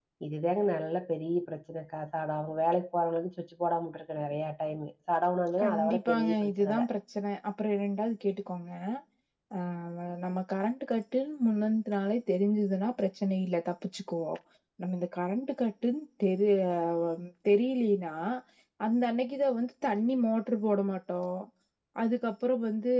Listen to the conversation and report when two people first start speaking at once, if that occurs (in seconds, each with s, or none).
5.6 s